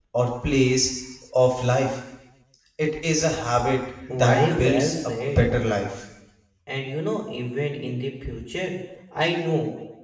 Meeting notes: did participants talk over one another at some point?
Yes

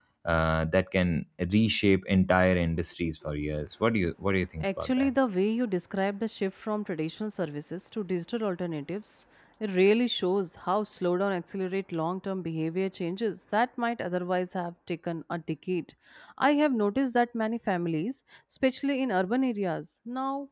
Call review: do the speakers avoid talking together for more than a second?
Yes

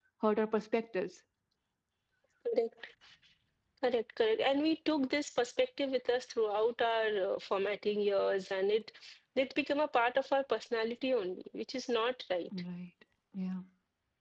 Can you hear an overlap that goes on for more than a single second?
No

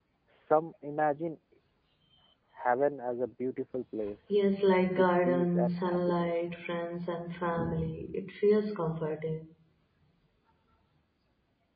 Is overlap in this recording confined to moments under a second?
No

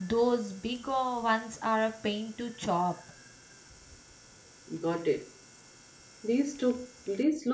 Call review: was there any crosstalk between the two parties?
No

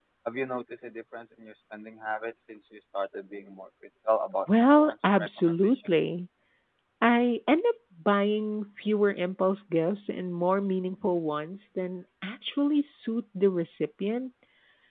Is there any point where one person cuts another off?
Yes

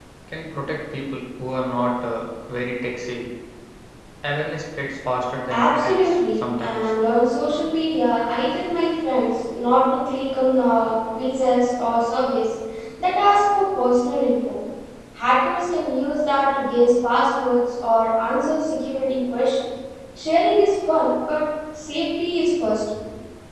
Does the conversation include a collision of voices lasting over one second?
Yes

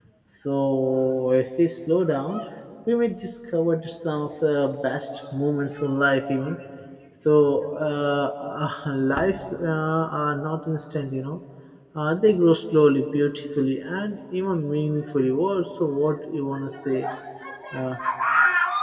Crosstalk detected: No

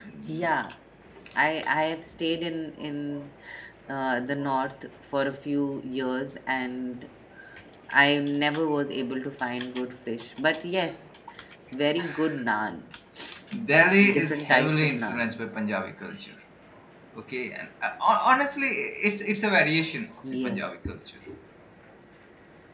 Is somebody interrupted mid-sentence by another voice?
Yes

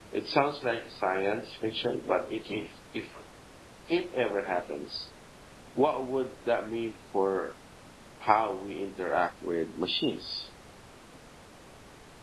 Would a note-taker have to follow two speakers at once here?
No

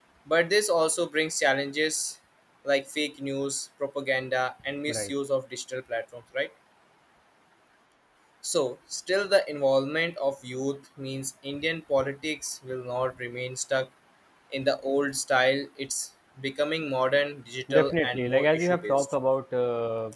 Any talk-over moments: Yes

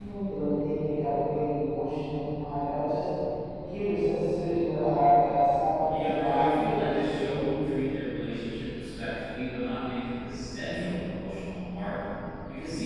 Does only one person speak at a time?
No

